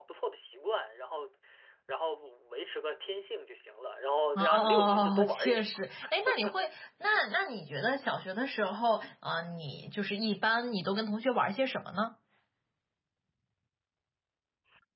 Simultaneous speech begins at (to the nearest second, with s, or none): 4 s